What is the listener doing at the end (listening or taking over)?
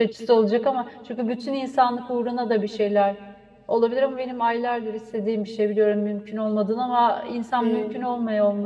listening